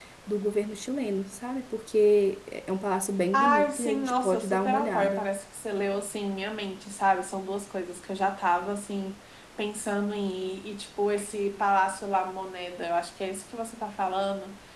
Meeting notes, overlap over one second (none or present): present